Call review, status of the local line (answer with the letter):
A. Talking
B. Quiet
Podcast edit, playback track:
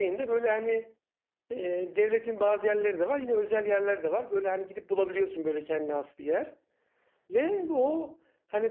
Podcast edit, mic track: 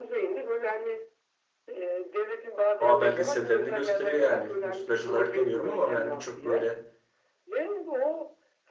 A